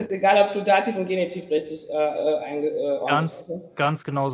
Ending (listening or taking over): taking over